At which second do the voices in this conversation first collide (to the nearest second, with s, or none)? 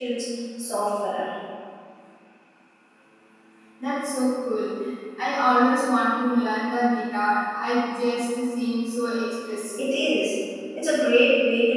none